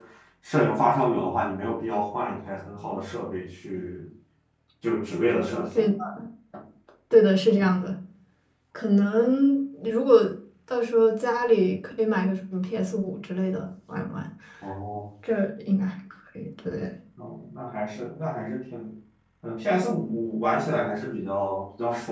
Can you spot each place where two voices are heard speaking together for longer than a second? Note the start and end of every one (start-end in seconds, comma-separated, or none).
none